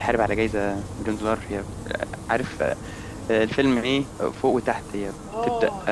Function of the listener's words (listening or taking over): taking over